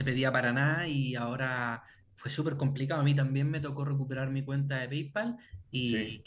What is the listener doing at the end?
listening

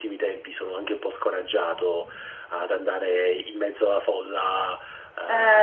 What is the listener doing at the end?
listening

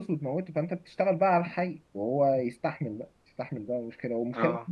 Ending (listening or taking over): listening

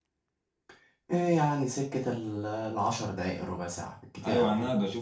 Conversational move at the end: taking over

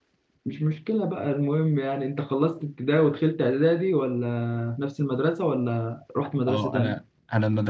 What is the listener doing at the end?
taking over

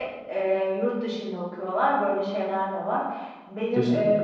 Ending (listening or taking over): listening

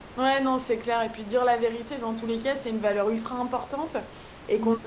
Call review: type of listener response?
listening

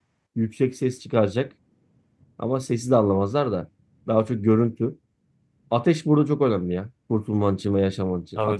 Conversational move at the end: taking over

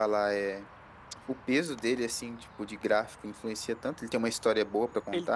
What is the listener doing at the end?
taking over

